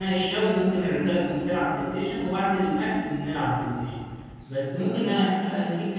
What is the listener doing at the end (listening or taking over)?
listening